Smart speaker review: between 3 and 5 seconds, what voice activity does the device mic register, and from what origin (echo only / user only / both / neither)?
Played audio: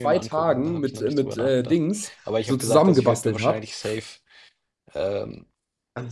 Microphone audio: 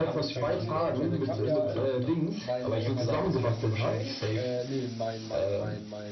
both